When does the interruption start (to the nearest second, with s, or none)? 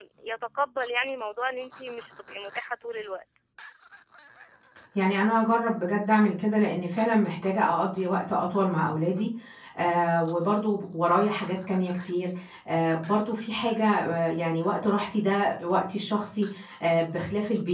none